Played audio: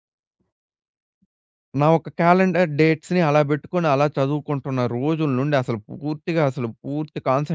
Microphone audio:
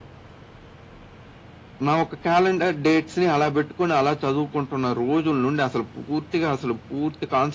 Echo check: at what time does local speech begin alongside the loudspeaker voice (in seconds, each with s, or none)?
none